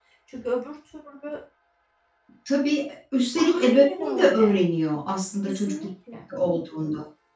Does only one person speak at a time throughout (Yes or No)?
No